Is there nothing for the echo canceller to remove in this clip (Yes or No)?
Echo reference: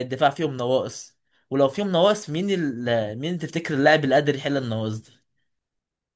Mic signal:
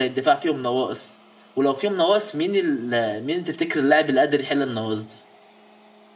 No